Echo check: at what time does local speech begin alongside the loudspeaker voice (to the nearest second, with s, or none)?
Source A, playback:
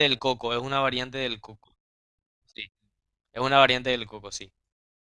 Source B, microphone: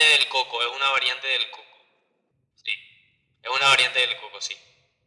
none